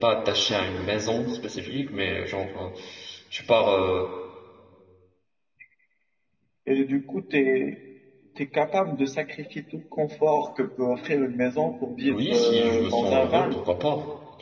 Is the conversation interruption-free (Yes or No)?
No